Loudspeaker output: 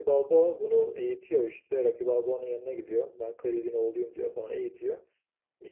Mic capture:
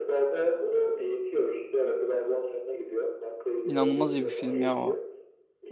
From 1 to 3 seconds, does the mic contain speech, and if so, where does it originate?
echo only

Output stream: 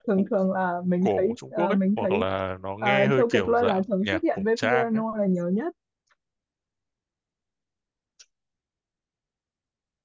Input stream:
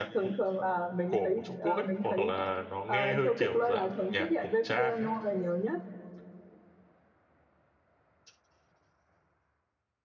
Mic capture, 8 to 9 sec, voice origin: neither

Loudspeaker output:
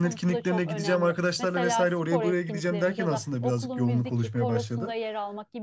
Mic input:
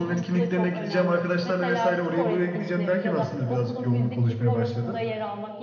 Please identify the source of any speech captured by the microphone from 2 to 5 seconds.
echo only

